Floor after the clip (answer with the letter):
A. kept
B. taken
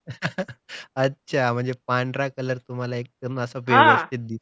B